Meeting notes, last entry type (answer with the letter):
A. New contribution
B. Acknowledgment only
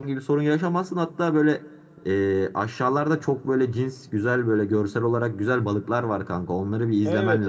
A